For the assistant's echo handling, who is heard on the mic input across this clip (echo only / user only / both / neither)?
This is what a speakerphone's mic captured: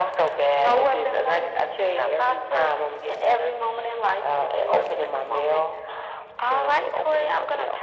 echo only